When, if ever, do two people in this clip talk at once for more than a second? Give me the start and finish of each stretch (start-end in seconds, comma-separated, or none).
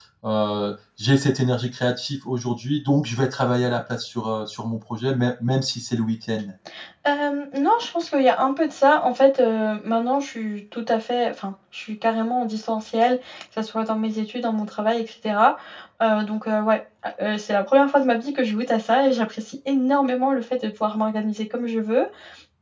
none